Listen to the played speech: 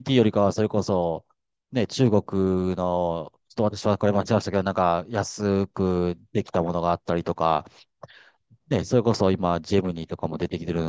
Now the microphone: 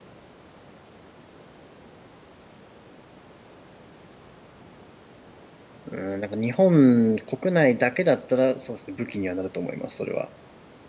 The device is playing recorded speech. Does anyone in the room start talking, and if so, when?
5.8 s

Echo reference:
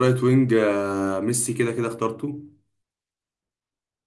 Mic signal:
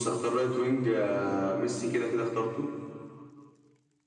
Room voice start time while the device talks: none

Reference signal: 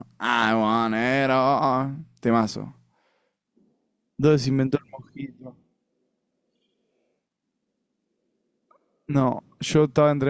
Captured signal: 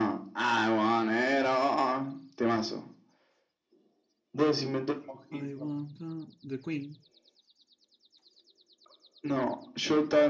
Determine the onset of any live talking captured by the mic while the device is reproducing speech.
5.3 s

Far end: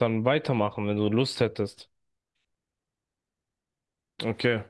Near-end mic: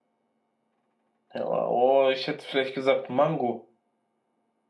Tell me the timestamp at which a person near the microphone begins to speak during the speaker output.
1.3 s

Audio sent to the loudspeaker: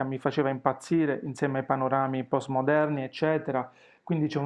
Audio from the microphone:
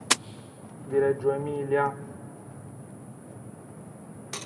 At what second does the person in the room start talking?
0.8 s

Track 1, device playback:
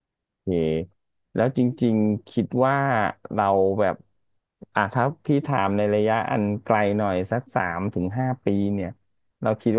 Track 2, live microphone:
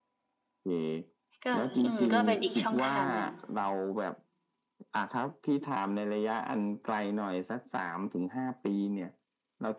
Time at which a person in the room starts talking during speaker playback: 1.4 s

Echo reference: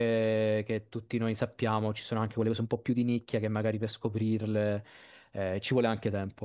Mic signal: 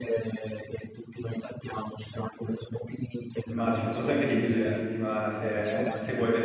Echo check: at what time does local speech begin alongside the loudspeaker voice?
3.4 s

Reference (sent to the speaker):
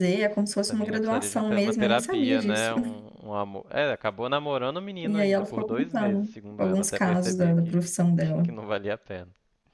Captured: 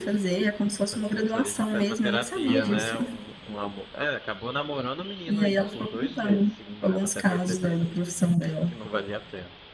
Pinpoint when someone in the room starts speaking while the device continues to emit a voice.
2.5 s

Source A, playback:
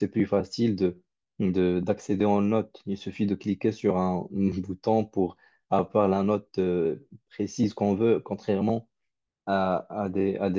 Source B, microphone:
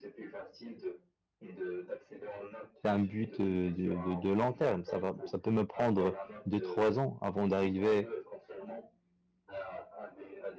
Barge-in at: 2.8 s

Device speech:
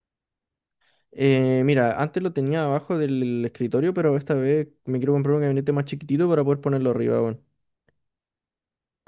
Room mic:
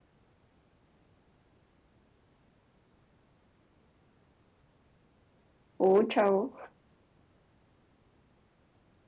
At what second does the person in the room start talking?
5.8 s

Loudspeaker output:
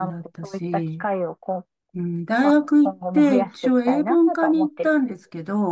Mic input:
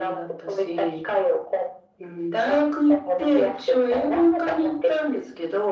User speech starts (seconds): none

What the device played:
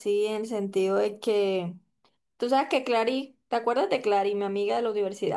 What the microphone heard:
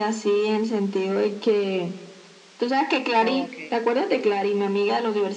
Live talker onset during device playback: 3.2 s

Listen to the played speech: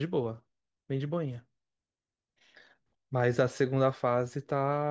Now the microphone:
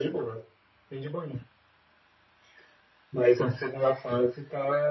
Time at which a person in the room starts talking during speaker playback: none

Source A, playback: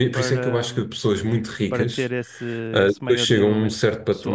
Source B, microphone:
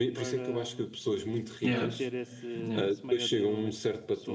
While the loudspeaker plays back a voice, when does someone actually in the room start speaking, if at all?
1.6 s

